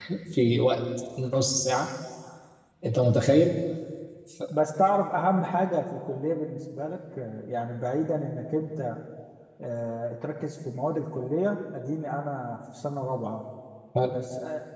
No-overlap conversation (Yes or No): Yes